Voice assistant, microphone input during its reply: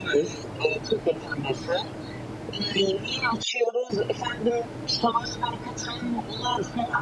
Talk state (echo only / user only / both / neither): echo only